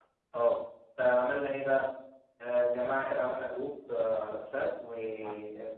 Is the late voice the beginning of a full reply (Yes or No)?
No